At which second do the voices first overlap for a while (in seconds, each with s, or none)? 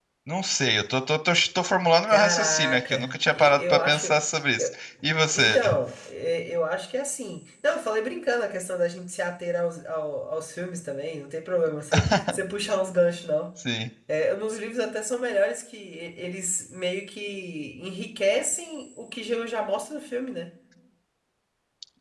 2.1 s